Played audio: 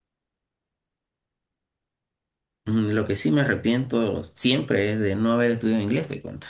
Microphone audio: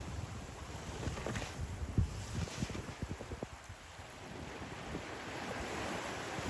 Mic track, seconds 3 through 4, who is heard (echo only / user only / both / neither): neither